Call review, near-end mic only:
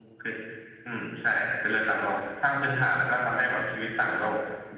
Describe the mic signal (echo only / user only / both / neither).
echo only